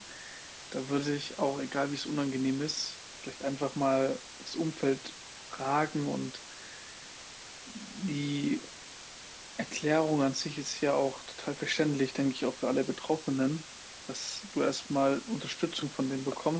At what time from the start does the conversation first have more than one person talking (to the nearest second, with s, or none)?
none